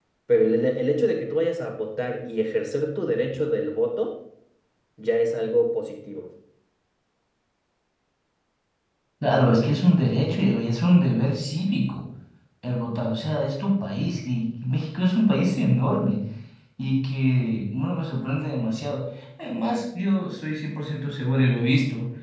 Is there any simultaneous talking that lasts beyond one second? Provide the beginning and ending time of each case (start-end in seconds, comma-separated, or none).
none